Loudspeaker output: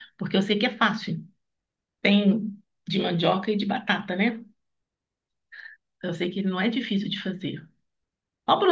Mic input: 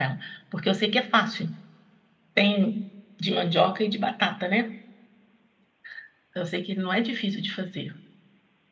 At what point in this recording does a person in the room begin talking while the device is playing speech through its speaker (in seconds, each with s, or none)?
none